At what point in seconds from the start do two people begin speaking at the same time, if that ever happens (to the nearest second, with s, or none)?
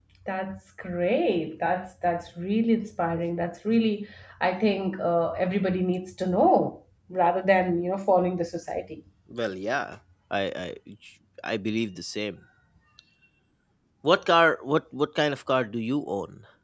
none